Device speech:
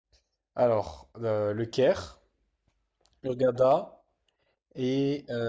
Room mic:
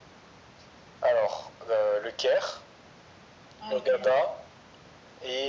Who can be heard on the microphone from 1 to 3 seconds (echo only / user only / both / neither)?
echo only